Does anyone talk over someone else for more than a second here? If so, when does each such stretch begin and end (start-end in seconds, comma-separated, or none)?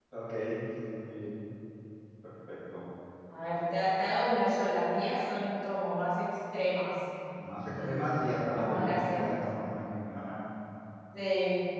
7.7-9.4